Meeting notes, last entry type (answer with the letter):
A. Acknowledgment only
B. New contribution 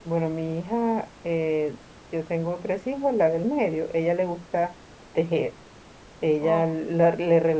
A